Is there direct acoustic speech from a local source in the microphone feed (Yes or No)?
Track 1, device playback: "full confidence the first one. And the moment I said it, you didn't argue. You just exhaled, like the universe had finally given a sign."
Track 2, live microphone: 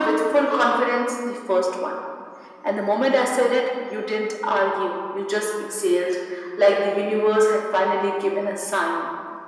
No